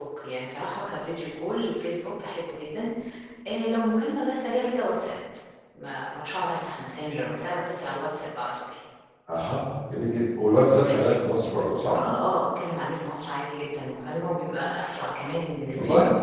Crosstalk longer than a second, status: none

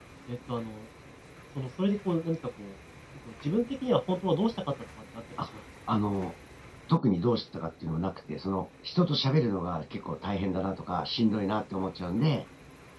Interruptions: none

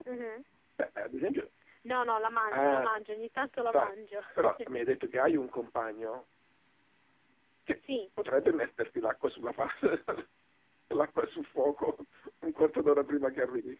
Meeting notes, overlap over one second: none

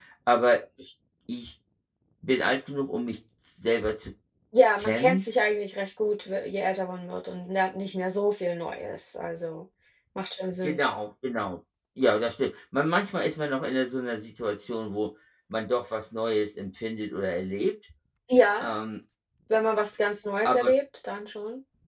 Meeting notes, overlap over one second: none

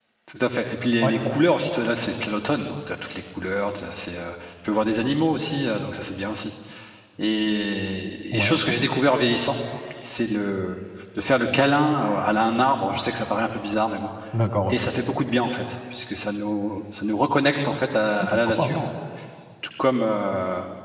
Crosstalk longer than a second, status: none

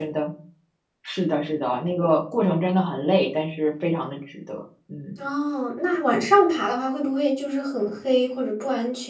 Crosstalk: none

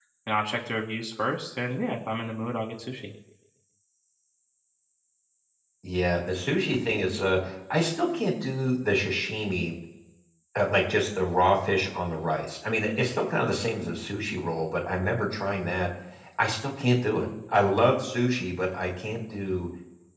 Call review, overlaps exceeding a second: none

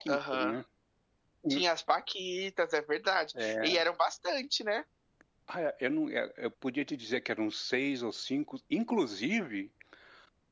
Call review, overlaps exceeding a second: none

